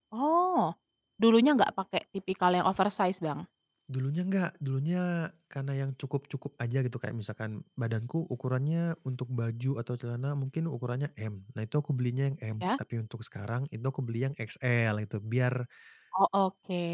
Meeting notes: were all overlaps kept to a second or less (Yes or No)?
Yes